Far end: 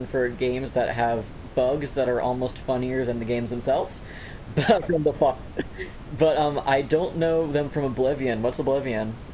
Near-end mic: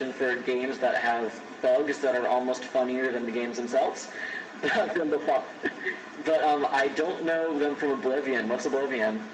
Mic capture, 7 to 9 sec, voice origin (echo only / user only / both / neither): echo only